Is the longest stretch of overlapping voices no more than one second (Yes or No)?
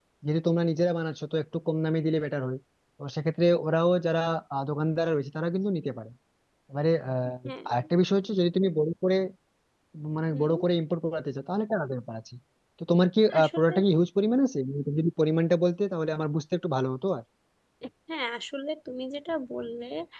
Yes